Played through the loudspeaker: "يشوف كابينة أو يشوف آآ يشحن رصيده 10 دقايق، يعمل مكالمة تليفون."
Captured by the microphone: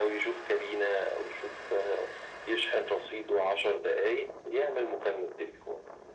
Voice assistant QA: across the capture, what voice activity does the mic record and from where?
echo only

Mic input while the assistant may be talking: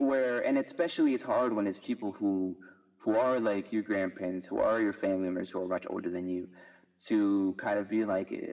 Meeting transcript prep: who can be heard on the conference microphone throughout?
echo only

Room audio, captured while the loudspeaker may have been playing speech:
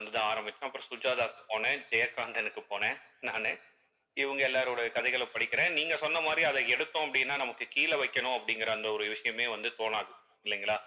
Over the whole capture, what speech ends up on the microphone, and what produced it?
echo only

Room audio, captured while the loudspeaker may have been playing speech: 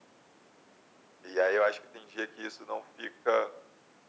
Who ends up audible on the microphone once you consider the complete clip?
echo only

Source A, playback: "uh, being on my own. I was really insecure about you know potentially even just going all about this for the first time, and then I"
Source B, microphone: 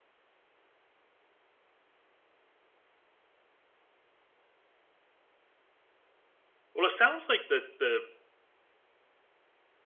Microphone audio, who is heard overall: user only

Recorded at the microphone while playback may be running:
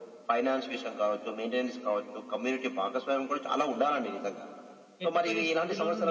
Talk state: both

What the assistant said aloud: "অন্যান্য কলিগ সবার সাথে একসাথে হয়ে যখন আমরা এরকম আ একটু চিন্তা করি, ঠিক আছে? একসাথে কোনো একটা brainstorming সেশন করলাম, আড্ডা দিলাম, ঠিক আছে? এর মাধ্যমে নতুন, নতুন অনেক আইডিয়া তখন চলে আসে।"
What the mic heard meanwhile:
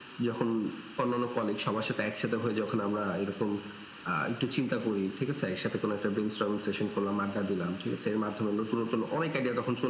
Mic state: echo only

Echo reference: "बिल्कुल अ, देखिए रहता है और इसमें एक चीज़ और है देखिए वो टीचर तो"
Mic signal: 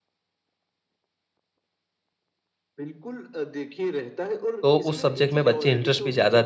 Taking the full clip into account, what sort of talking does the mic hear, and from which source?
both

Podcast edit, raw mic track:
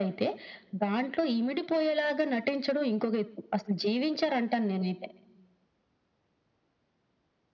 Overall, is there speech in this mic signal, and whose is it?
echo only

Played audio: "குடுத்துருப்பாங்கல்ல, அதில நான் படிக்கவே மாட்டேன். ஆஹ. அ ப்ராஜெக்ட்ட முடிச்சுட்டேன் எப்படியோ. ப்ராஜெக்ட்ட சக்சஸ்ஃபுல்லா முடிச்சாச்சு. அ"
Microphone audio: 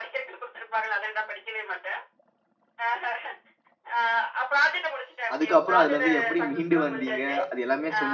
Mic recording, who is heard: both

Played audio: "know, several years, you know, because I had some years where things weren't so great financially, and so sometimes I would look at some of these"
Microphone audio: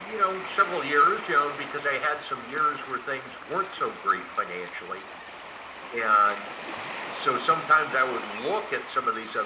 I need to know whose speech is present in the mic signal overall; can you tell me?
echo only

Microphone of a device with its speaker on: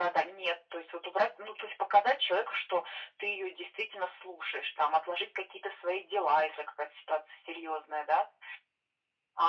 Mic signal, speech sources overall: echo only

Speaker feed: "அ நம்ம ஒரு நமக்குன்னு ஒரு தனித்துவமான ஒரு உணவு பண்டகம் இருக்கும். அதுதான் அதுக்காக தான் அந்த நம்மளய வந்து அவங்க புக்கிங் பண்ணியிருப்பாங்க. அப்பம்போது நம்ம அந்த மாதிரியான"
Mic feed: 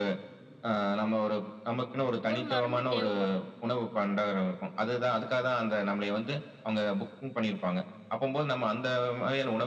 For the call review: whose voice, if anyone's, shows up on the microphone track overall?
both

